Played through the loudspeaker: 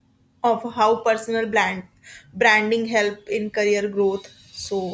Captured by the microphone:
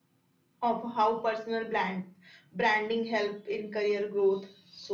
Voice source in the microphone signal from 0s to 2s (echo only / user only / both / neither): echo only